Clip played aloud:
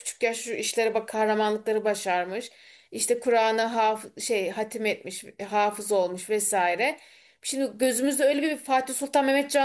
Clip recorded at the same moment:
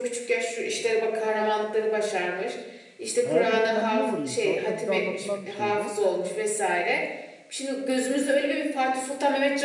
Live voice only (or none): Hayal kırıklığına niye uğrayayım? Sonuçta bize anlatılan bir şey bu.